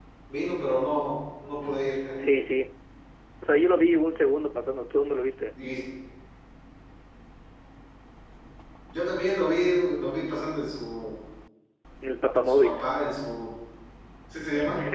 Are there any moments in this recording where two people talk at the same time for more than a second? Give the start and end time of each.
none

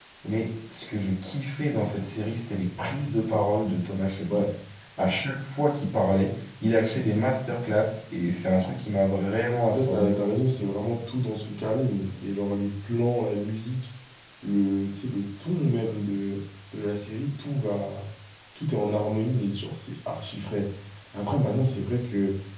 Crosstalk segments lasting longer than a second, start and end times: none

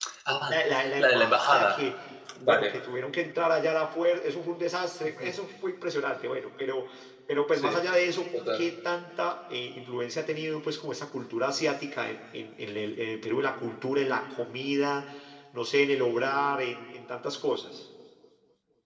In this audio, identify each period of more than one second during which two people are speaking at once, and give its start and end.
0.5-1.9

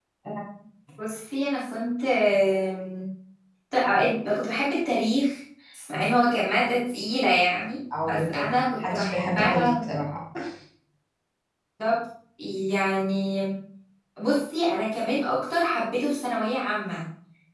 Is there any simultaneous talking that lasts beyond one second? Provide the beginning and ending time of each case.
8.1-9.7

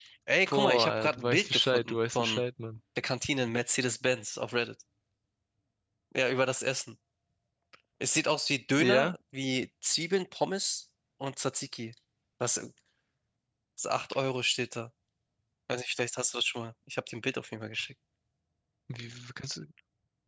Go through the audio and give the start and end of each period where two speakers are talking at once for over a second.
0.5-2.4

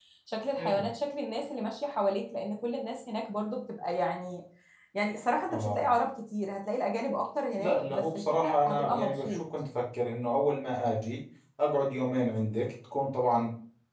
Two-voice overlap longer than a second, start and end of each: 7.6-9.4

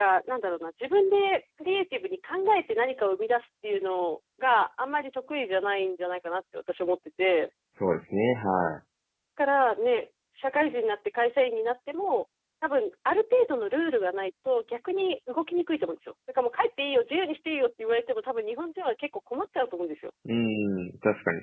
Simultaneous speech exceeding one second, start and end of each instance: none

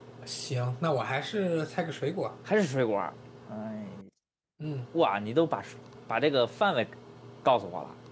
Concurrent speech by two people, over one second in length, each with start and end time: none

